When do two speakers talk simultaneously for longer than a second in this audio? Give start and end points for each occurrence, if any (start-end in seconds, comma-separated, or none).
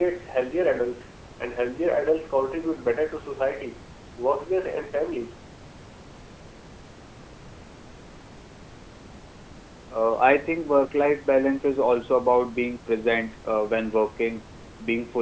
none